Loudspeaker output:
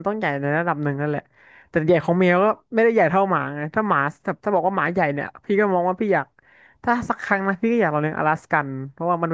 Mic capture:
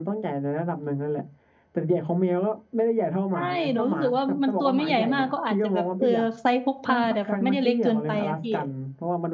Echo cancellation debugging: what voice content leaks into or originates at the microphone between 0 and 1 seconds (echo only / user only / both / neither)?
echo only